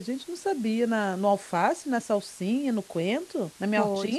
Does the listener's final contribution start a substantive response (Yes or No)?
Yes